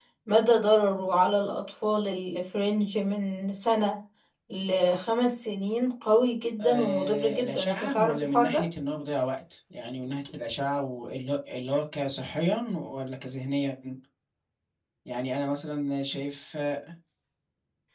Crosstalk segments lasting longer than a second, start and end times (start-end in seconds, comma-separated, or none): 6.6-8.6